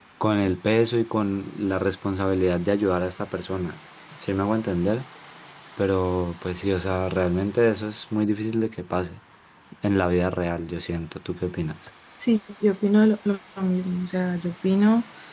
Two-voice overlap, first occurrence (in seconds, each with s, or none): none